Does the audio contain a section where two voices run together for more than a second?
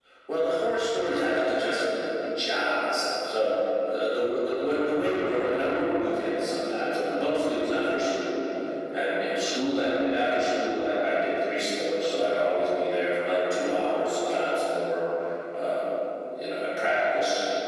No

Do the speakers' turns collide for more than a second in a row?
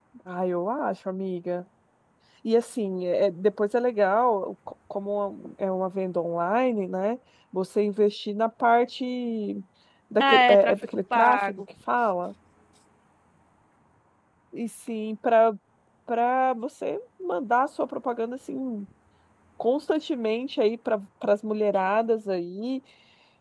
Yes, from 10.2 s

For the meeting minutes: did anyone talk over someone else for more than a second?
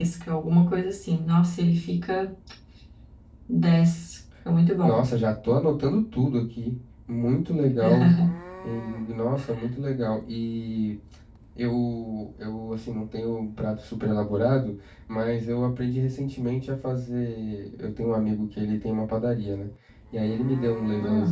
No

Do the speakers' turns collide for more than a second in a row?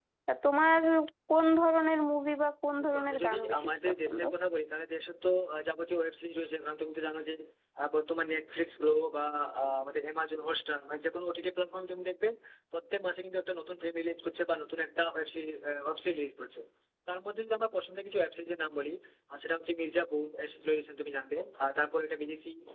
Yes, from 2.8 s

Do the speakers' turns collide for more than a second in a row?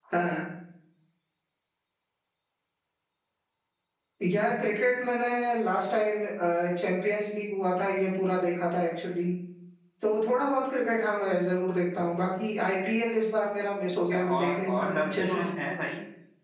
Yes, from 13.9 s

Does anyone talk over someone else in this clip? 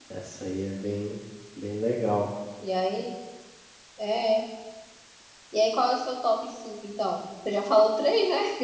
No

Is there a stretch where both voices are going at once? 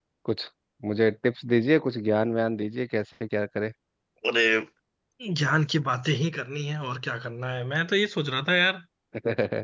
No

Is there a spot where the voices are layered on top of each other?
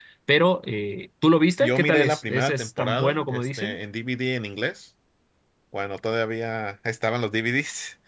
Yes, from 1.6 s

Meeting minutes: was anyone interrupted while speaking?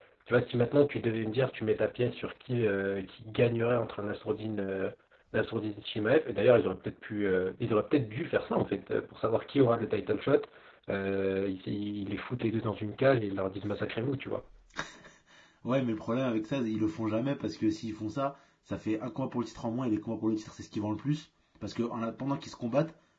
No

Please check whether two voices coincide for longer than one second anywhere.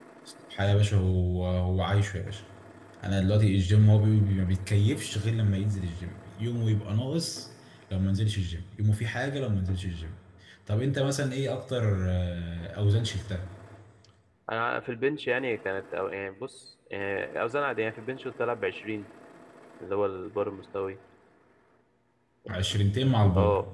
No

